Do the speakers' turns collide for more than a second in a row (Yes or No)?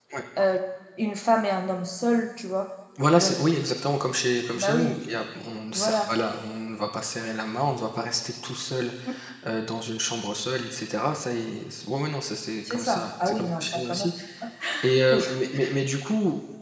Yes